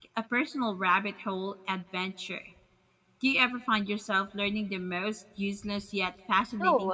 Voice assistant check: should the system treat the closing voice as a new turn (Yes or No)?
Yes